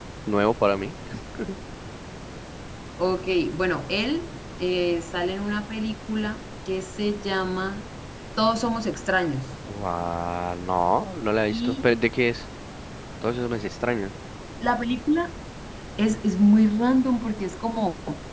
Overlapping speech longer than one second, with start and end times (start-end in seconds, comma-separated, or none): none